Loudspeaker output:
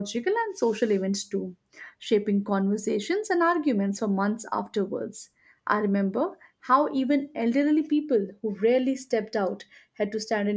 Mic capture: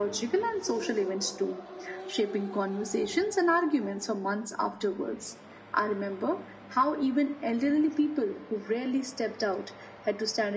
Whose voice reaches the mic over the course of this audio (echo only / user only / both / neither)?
echo only